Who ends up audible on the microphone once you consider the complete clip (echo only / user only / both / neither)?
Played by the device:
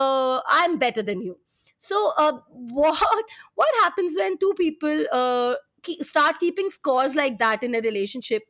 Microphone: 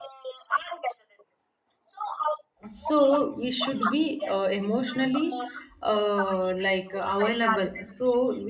both